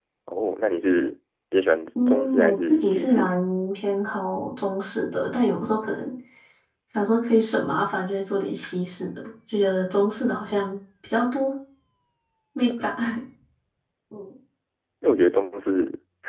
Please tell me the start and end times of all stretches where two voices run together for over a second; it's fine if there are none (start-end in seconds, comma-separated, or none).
2.0-3.3